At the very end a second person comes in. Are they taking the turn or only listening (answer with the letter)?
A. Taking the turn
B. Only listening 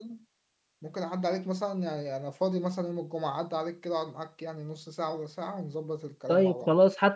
A